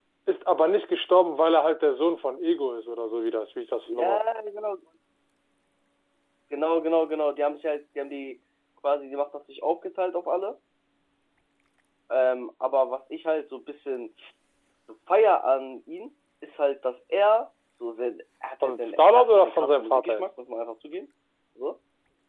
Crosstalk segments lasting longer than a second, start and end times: 18.6-20.2

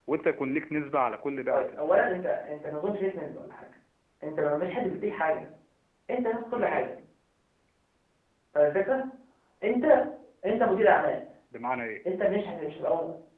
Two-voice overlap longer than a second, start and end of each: none

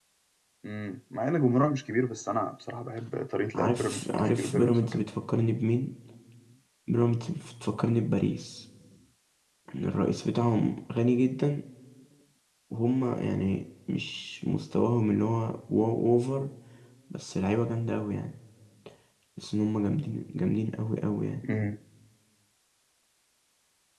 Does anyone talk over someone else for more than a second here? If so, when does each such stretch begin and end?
3.5-5.0

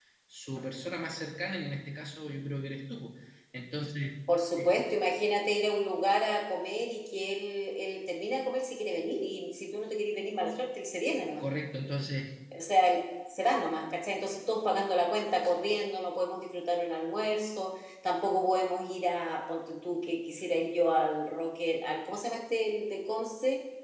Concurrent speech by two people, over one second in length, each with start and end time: none

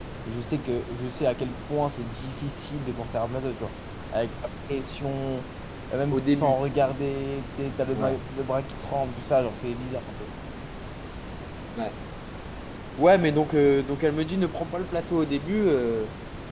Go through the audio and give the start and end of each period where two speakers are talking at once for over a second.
none

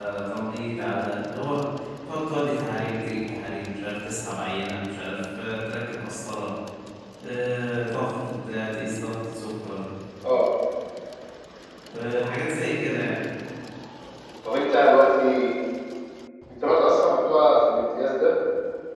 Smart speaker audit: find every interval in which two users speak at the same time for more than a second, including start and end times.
none

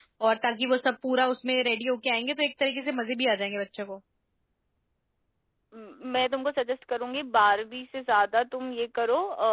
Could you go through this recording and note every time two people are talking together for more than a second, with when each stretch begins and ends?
none

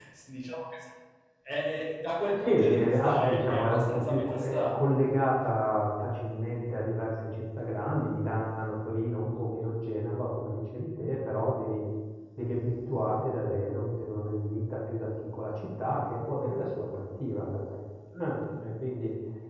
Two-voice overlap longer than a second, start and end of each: 2.3-4.9

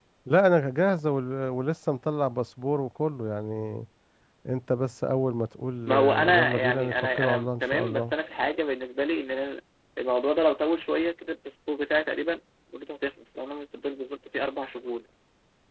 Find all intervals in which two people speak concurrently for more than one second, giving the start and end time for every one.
5.9-8.1

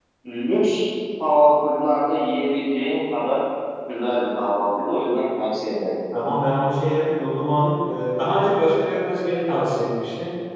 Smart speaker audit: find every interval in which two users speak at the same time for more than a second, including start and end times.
none

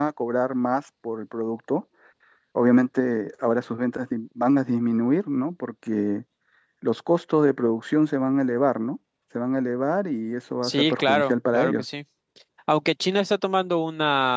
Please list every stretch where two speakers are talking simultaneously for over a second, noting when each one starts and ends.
10.6-11.8

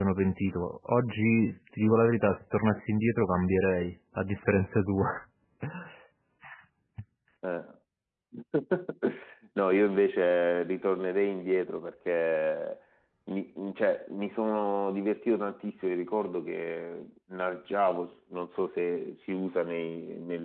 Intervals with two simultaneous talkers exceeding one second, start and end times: none

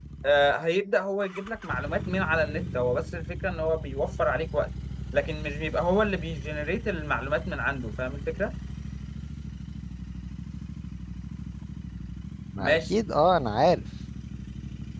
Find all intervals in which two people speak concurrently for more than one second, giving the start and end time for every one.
none

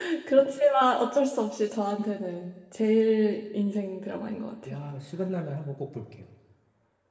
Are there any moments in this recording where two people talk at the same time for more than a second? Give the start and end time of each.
none

